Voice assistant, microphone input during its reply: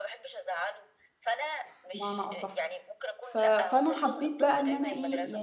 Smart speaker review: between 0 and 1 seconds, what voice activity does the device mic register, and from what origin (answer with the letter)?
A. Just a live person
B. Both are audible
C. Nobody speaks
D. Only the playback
D